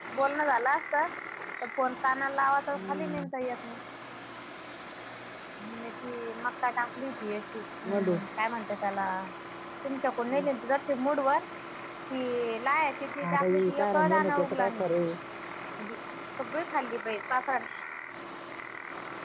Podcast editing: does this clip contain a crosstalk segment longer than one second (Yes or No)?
Yes